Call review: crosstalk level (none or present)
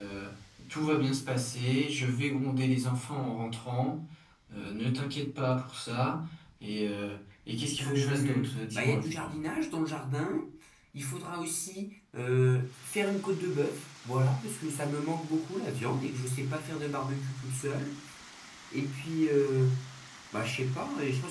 present